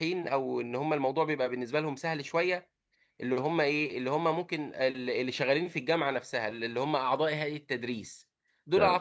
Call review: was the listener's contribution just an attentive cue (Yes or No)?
Yes